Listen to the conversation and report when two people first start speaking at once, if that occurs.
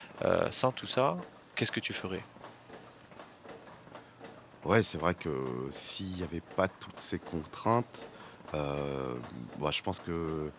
none

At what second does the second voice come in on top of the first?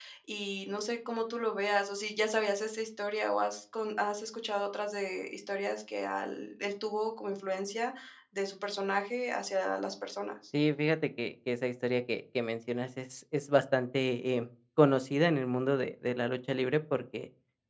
none

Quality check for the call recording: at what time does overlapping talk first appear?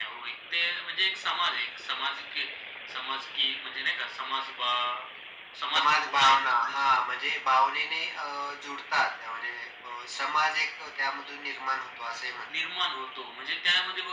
5.8 s

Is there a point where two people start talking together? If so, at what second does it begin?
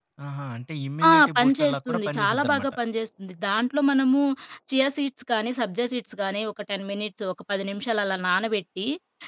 1.1 s

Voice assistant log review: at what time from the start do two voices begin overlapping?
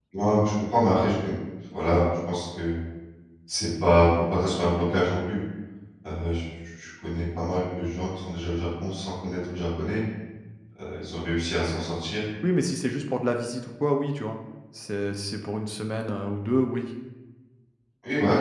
none

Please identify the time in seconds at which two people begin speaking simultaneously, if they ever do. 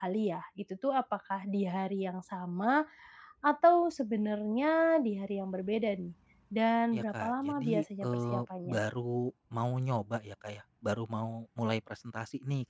6.9 s

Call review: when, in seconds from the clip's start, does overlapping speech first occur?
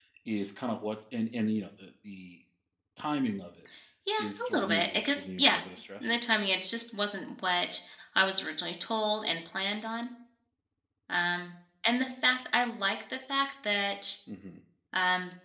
4.2 s

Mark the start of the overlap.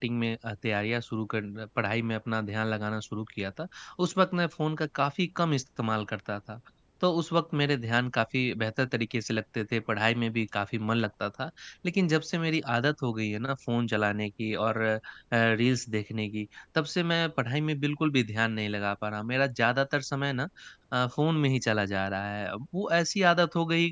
none

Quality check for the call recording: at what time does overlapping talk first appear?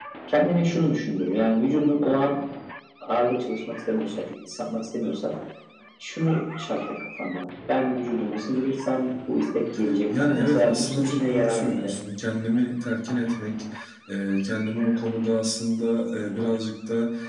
10.1 s

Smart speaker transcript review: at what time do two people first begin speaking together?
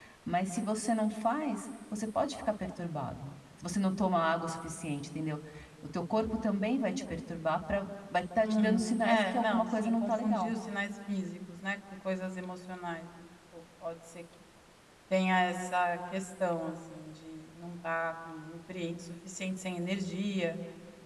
8.4 s

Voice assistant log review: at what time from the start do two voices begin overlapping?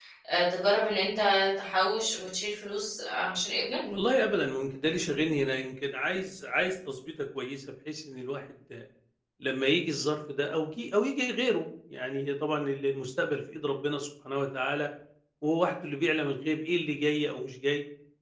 none

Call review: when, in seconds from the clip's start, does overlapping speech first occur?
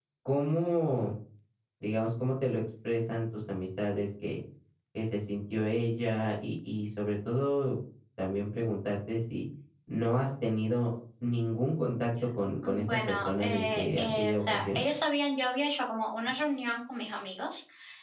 12.6 s

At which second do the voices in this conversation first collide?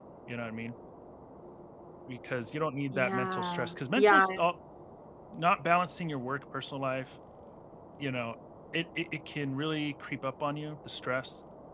2.9 s

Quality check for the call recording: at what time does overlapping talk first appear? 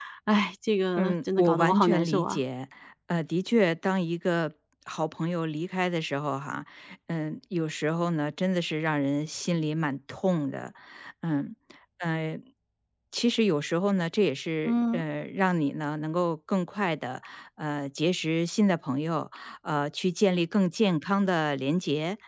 1.0 s

